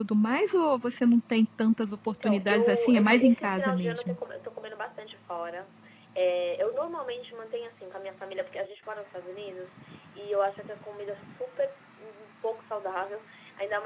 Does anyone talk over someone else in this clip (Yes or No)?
Yes